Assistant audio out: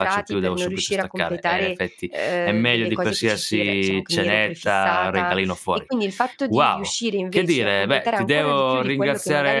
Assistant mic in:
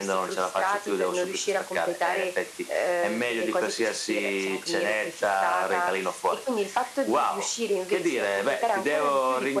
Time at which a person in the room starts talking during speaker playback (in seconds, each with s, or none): none